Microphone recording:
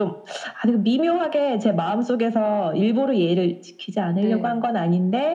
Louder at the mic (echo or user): echo